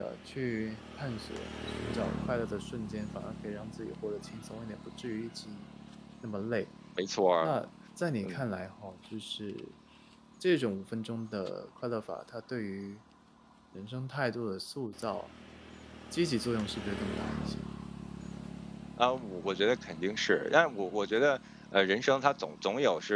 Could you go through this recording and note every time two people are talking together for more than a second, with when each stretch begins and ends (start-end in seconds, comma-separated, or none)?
none